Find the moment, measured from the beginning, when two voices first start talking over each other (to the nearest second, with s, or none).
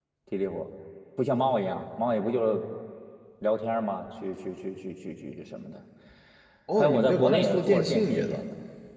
7 s